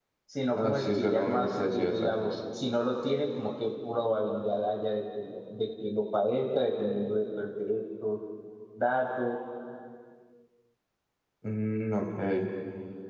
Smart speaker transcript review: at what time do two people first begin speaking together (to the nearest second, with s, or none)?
1 s